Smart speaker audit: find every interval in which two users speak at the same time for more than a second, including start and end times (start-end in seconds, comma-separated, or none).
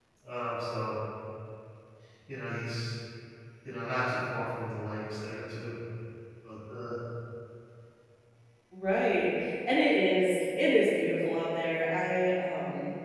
none